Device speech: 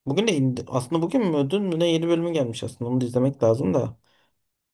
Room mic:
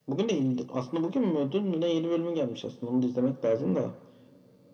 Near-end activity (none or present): none